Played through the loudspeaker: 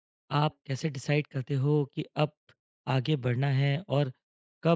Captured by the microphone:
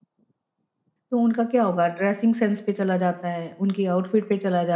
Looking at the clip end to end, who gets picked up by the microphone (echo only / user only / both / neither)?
user only